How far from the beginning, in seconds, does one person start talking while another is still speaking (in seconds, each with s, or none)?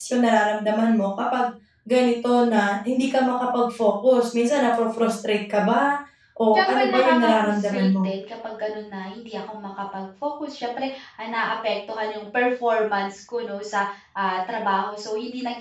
6.5 s